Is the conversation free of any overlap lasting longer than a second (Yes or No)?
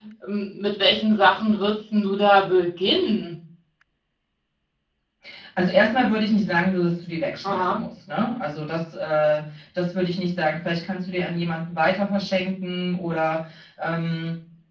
Yes